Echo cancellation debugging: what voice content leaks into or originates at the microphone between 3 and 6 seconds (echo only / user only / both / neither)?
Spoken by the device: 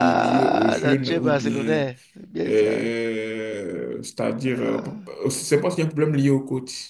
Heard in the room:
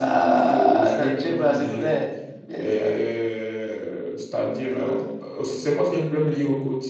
echo only